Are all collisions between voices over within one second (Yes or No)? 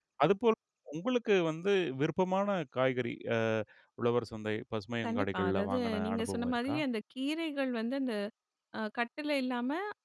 No